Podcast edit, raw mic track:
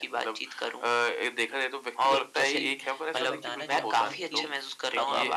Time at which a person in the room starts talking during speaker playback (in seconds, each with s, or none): 2.5 s